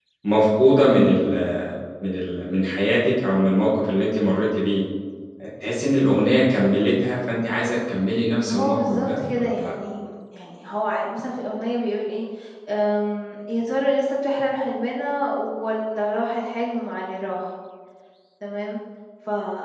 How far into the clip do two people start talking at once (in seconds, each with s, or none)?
8.4 s